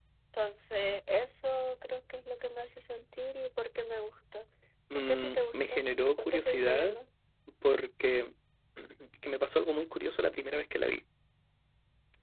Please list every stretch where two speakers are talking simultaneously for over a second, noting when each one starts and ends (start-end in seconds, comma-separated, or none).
4.9-7.0